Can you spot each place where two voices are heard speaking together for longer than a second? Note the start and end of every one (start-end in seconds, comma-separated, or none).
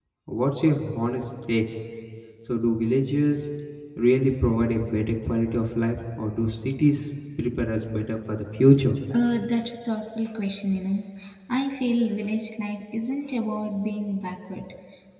none